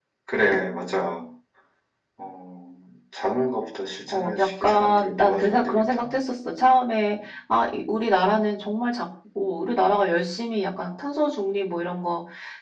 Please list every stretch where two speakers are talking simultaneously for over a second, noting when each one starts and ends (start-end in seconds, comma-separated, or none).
4.1-6.0